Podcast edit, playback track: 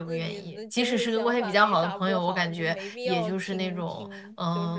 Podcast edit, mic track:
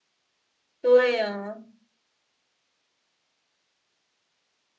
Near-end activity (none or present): present